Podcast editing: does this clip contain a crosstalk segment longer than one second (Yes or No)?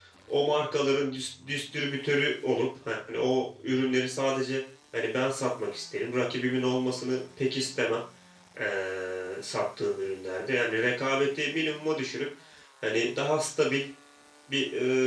No